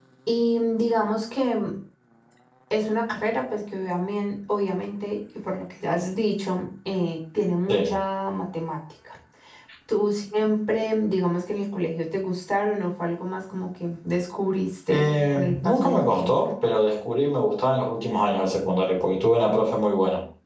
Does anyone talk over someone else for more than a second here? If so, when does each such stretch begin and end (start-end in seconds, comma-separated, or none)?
14.9-16.3